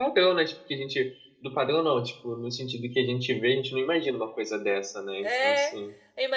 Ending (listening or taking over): taking over